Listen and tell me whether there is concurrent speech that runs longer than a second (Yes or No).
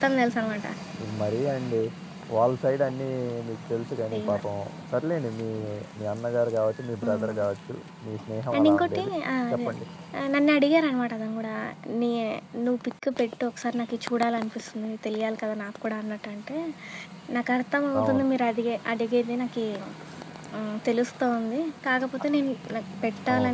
No